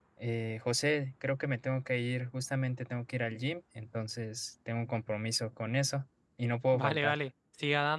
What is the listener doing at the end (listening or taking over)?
taking over